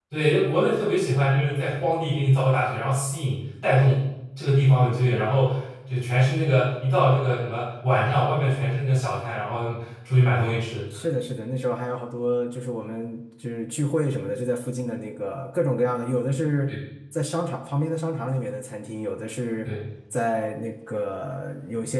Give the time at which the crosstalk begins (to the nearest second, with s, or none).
none